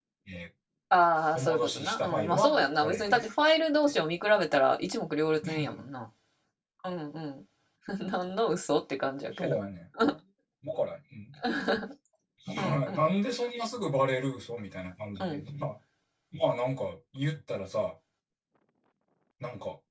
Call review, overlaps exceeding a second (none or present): present